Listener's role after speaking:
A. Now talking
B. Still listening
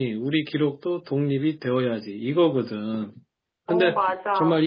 B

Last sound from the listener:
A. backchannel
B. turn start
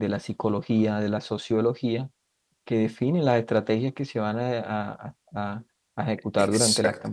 A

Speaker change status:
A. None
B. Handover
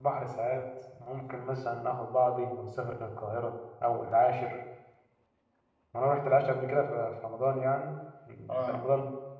A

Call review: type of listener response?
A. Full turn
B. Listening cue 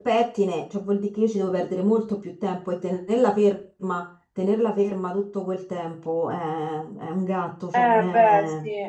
A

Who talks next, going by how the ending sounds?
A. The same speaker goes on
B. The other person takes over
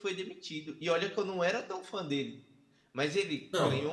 A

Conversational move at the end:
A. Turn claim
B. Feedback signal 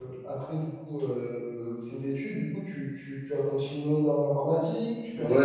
A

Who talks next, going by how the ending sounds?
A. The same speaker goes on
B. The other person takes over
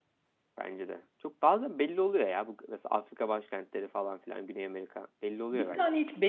B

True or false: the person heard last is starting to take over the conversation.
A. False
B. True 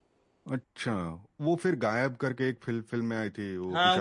B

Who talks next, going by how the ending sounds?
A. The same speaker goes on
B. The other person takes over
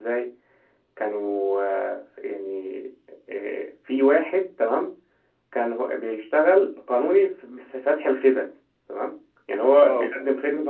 A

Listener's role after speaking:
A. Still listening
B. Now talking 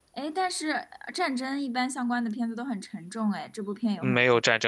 B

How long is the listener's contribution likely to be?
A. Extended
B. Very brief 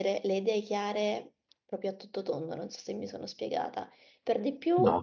B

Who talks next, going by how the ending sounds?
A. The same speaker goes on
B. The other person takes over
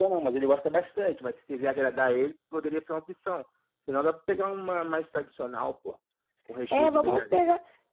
B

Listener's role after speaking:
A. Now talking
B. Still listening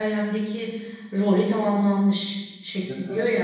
B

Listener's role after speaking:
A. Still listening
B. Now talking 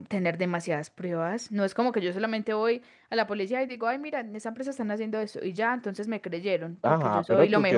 B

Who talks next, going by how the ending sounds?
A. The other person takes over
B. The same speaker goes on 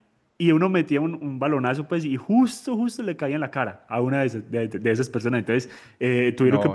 B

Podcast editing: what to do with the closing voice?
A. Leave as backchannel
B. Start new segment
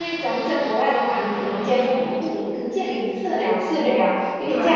A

